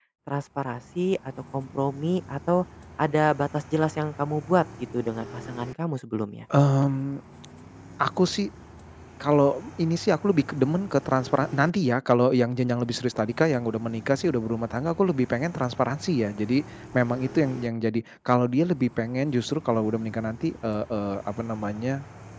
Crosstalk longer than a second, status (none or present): none